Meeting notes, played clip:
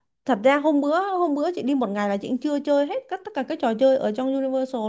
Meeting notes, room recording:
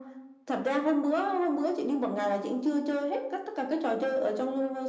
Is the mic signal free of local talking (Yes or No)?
Yes